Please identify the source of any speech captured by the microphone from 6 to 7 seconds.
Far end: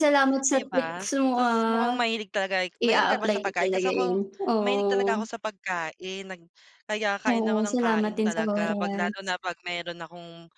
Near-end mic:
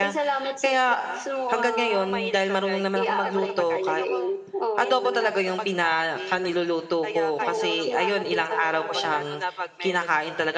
both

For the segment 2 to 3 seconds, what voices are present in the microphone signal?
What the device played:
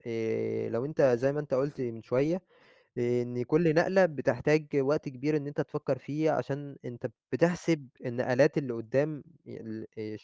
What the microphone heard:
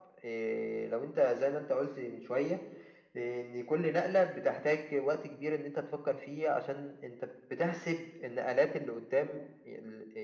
echo only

